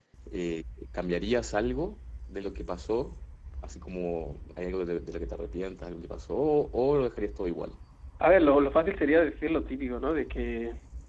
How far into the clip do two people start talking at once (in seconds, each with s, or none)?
none